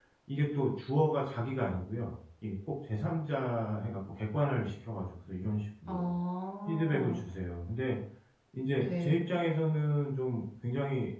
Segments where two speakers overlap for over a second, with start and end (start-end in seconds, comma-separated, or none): none